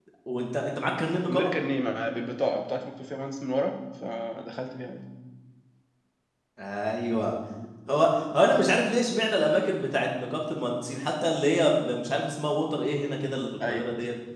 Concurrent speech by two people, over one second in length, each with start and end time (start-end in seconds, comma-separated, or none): none